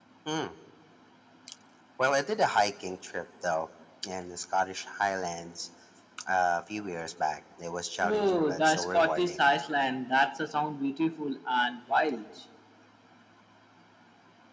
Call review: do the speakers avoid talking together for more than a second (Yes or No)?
No